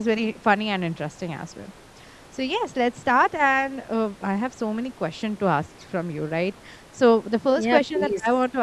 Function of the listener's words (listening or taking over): listening